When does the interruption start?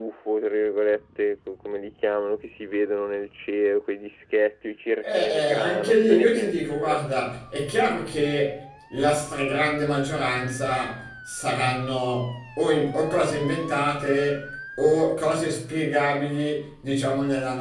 5 s

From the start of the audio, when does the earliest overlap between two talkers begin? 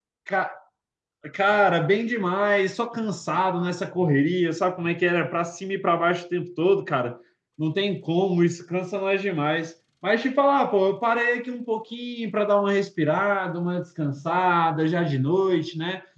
none

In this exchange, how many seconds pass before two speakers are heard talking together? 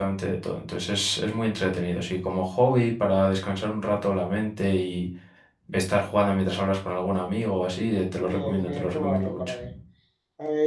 8 s

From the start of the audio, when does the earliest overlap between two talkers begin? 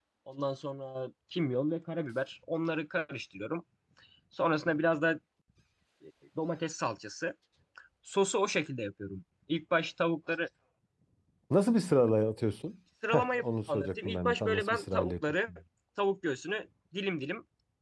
13 s

